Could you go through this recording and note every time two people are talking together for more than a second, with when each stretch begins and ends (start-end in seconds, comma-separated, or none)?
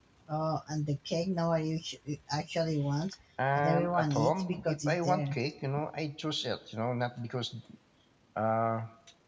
3.6-5.3